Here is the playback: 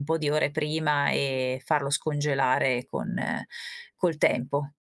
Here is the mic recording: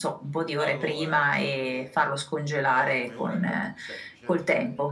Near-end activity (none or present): present